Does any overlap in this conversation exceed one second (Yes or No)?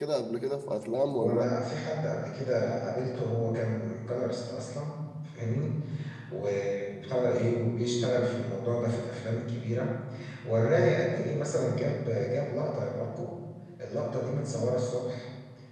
No